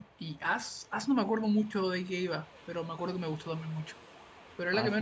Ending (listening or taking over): taking over